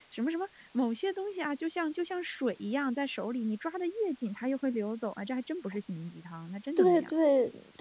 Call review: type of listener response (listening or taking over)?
taking over